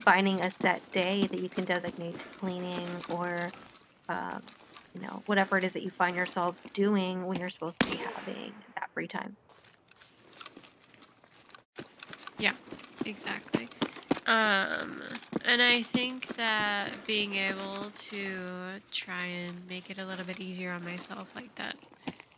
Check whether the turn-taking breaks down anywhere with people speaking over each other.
No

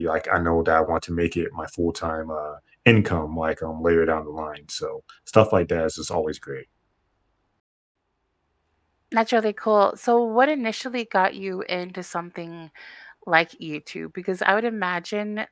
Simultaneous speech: No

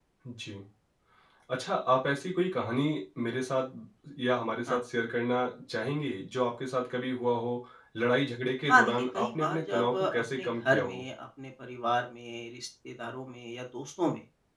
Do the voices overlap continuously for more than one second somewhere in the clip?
Yes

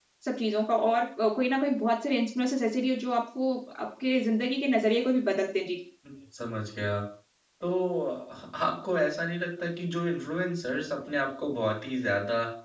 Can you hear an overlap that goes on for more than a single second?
No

